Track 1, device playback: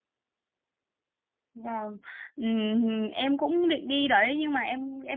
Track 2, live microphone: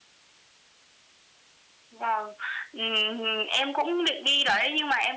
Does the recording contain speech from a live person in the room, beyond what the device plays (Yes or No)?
No